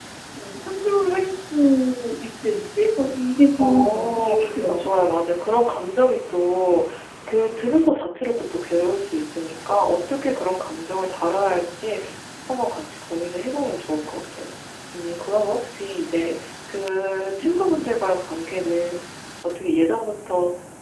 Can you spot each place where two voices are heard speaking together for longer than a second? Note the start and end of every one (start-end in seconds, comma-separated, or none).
3.6-4.9